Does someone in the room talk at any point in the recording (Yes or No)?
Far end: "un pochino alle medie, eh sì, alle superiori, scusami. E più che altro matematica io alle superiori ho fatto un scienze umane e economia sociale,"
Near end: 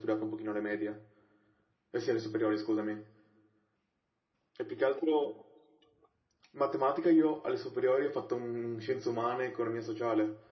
No